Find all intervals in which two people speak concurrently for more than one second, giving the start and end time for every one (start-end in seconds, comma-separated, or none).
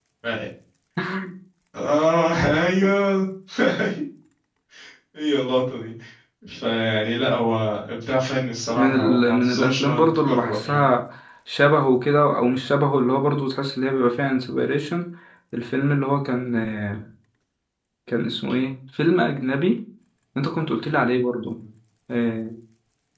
8.8-10.8